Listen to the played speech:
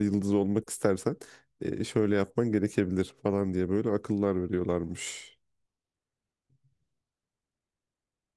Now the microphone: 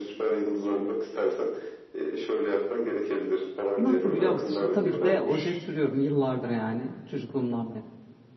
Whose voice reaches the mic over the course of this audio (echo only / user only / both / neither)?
both